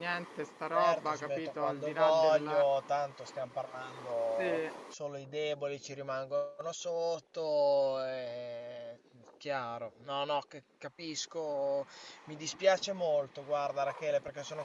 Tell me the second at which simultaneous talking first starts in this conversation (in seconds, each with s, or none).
0.7 s